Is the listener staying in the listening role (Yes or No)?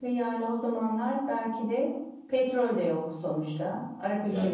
No